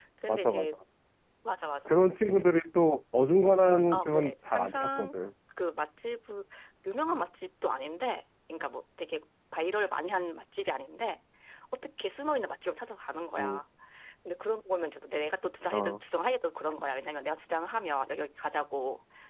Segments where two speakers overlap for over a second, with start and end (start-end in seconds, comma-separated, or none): 3.9-5.2